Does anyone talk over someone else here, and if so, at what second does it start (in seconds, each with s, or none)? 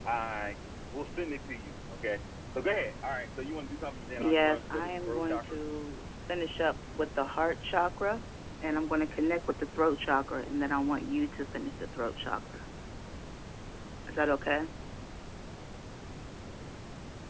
4.2 s